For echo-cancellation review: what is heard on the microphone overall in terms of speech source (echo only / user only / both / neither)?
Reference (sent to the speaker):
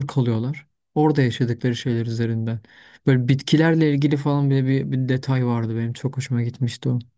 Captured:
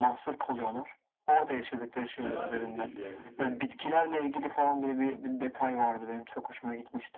both